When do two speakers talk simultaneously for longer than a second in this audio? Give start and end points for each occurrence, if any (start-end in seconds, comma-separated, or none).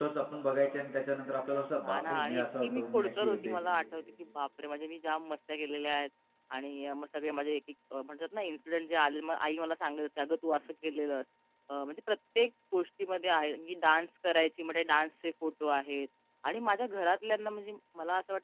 1.9-3.6